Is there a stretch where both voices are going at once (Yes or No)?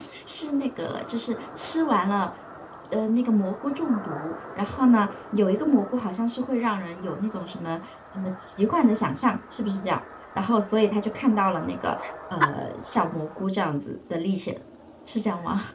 No